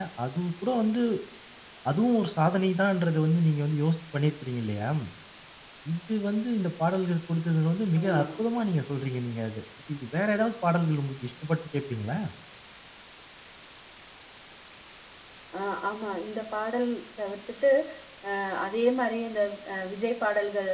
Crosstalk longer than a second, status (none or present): none